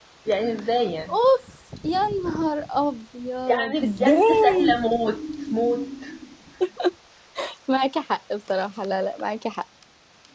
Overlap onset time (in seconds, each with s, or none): 3.5 s